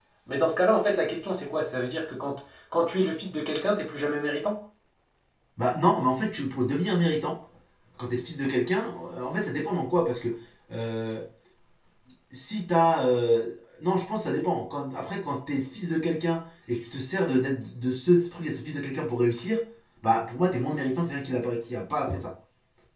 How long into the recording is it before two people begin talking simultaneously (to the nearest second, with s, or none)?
none